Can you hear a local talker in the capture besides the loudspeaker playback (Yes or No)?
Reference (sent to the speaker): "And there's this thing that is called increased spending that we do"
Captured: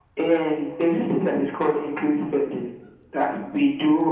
No